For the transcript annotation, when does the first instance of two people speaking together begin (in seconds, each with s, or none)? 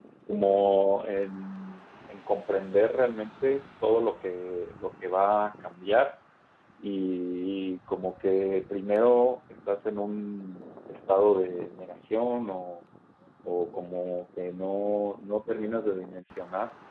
none